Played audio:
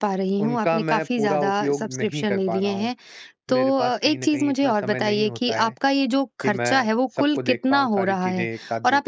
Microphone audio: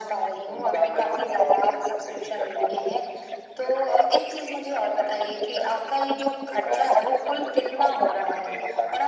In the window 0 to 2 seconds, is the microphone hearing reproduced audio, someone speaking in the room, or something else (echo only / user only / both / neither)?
echo only